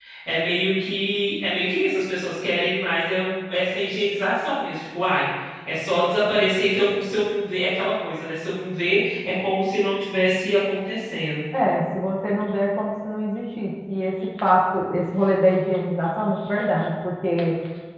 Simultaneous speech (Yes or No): No